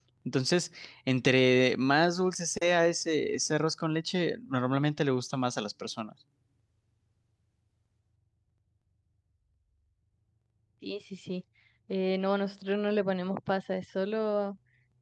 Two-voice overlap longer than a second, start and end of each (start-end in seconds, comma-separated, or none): none